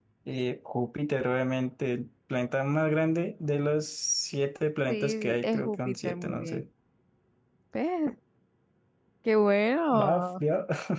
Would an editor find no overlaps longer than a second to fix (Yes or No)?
No